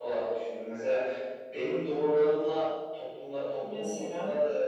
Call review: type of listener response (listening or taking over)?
listening